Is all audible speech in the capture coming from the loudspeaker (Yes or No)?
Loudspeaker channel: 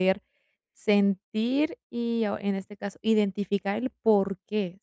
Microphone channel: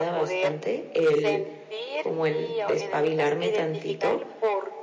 No